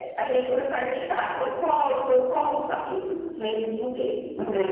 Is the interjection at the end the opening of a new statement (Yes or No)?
No